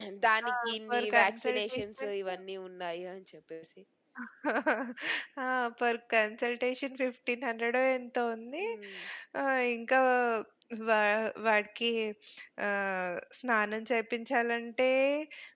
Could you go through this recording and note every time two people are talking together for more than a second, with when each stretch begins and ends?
0.5-2.1

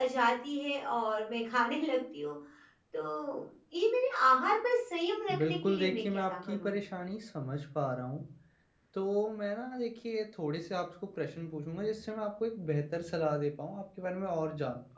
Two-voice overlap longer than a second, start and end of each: 5.4-6.7

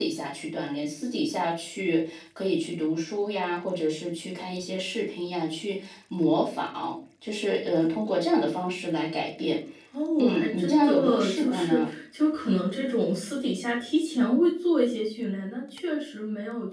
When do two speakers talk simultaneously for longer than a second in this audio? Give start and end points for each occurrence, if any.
10.2-11.9

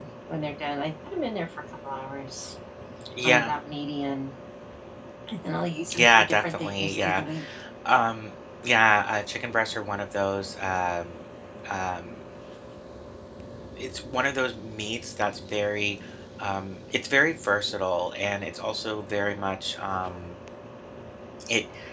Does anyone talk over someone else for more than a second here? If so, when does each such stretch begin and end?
6.0-7.2

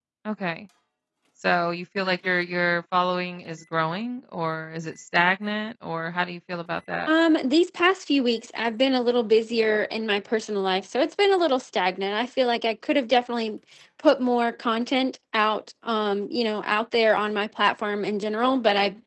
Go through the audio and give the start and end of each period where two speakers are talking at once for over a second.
none

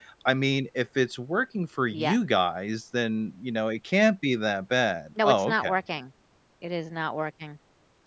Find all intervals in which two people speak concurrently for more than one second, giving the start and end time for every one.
none

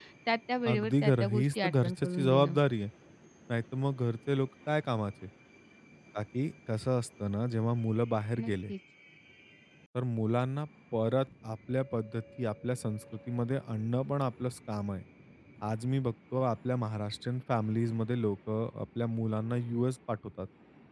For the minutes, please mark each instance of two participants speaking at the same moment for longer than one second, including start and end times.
0.7-2.5

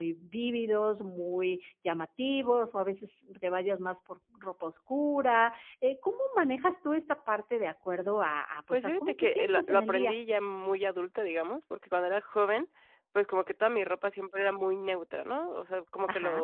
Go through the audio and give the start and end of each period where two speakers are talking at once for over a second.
8.7-10.2

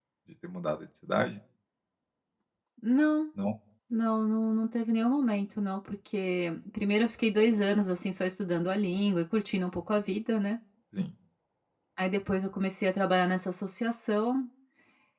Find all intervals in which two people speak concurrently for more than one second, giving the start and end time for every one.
none

